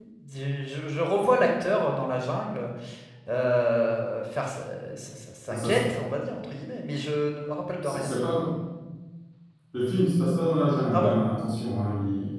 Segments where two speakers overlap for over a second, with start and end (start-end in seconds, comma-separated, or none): none